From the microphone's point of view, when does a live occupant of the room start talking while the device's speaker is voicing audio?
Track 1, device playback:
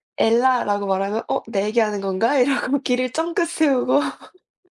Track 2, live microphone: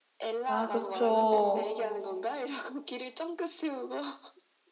0 s

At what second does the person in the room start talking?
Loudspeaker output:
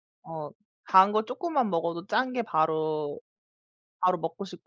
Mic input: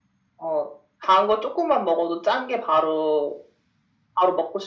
none

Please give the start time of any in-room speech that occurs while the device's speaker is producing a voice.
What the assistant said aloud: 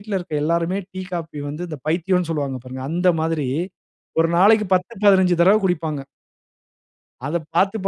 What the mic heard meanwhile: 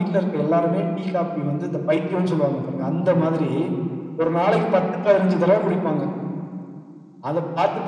none

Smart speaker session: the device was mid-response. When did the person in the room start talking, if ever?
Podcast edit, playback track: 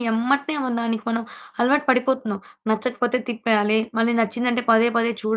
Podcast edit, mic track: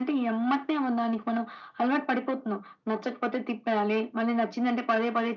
none

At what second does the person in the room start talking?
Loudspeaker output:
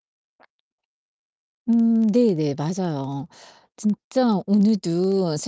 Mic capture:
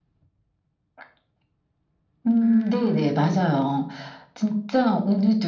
2 s

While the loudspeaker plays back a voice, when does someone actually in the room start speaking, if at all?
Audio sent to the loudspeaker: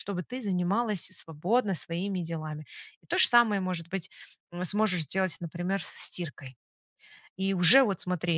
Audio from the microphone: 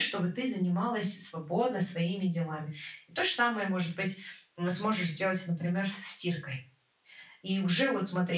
none

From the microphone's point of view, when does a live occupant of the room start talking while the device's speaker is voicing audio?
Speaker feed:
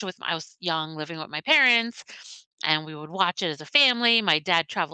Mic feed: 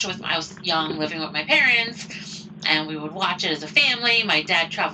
none

